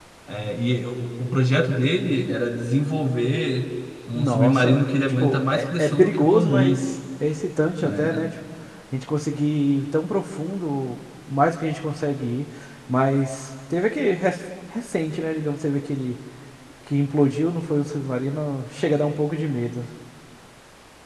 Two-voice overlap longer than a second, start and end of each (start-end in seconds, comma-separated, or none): 4.2-6.8